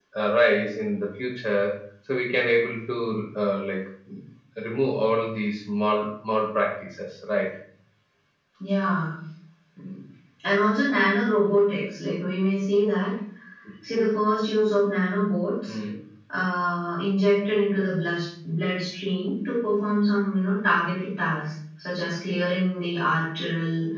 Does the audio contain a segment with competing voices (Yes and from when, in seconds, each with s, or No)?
No